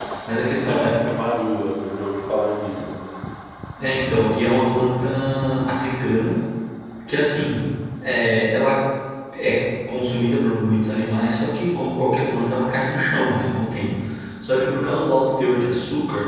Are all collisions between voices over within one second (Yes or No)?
Yes